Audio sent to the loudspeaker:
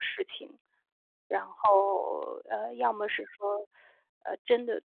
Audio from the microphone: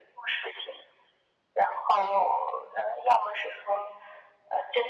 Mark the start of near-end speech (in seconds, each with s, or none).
none